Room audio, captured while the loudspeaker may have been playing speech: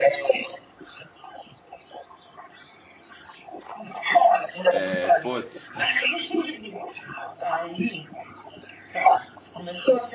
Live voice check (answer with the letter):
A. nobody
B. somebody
B